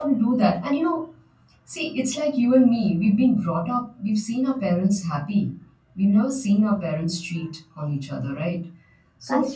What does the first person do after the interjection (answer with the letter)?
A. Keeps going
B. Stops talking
A